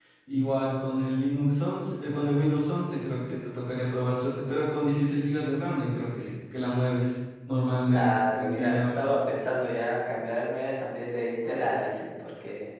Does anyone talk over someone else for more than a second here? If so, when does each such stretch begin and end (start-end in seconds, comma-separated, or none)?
7.9-9.1